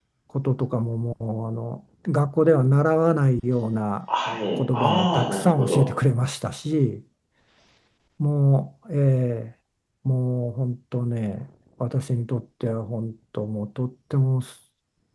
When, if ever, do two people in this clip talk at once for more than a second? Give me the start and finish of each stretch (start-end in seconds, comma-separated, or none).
4.6-5.8